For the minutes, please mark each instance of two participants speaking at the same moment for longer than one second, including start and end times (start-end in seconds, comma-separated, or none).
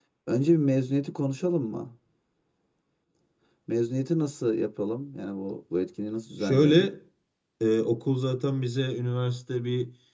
none